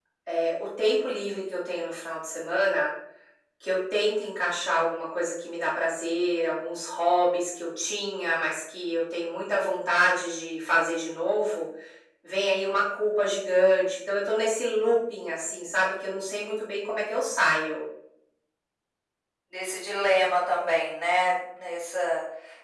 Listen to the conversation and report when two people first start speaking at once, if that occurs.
none

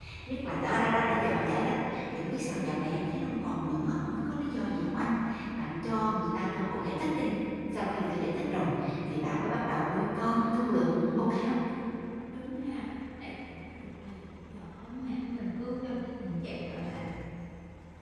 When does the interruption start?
10 s

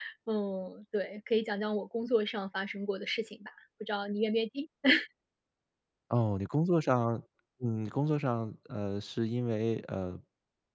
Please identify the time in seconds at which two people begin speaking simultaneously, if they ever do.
none

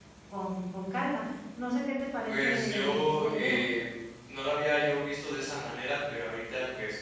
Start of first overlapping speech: 2 s

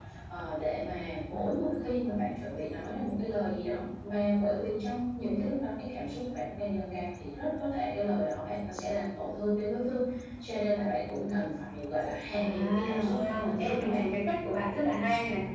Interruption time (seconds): 12 s

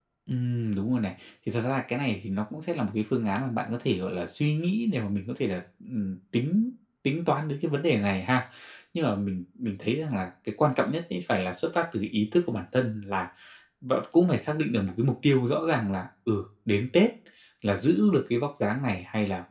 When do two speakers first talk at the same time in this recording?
none

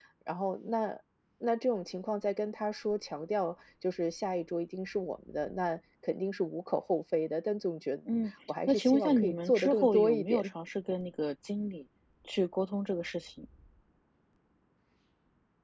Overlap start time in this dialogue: 9 s

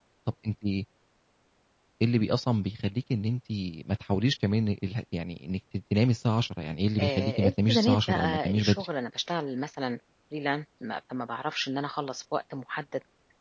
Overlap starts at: 7 s

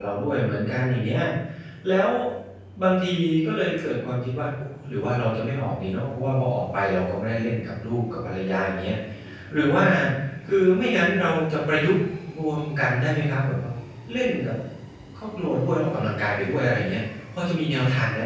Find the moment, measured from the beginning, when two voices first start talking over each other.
none

